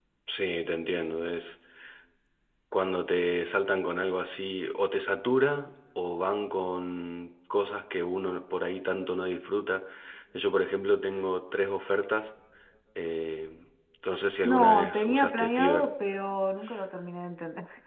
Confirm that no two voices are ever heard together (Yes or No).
No